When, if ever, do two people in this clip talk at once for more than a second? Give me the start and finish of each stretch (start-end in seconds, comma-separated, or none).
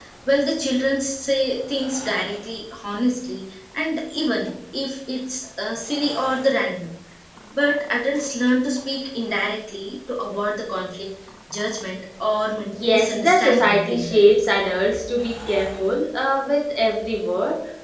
12.9-14.3